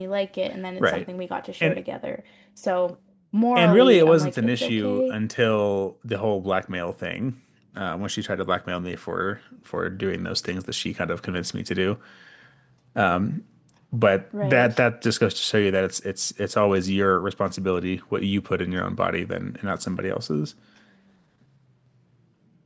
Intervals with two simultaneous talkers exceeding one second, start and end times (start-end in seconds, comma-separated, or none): 3.6-5.1